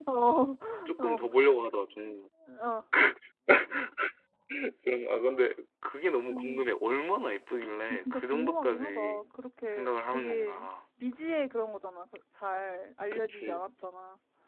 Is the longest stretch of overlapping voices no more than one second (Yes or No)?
No